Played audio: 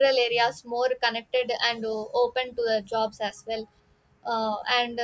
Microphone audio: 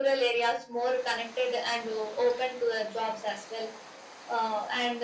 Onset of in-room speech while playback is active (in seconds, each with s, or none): none